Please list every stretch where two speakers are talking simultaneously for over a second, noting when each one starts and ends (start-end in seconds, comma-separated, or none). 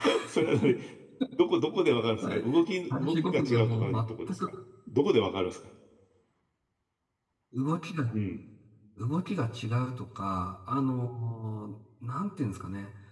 2.9-4.4